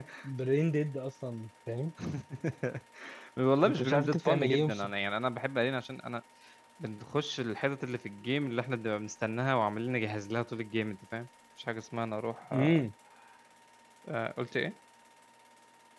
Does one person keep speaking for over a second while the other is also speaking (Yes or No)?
Yes